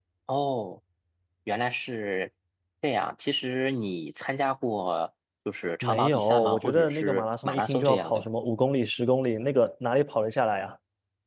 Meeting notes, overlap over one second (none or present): present